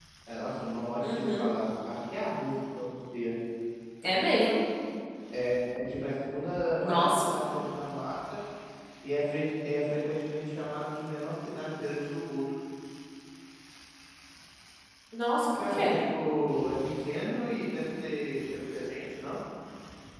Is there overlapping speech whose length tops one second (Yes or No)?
No